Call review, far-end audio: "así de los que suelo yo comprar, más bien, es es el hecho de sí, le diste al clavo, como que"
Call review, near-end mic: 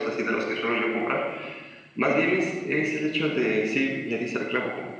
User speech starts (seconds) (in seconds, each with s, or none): none